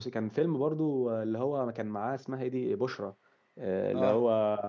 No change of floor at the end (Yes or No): Yes